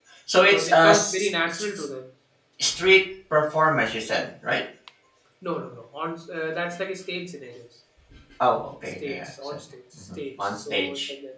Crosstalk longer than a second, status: present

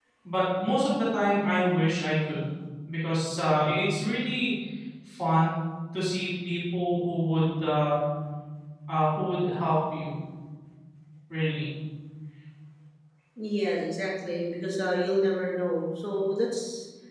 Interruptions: none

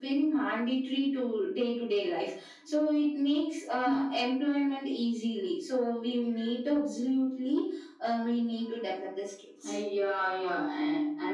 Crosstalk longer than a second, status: none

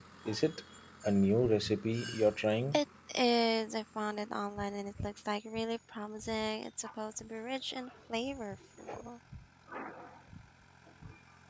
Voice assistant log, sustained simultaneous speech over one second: none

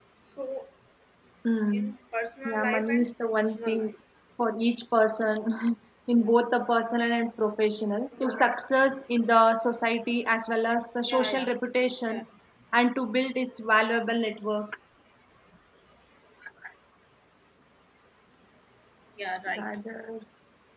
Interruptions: present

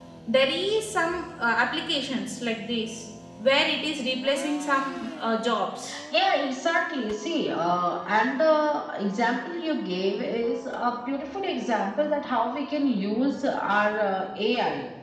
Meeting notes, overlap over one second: none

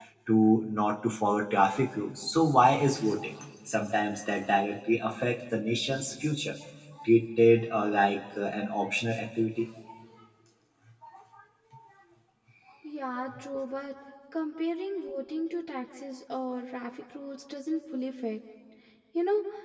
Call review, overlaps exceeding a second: none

